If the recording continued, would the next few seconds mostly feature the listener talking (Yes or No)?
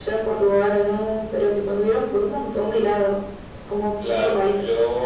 Yes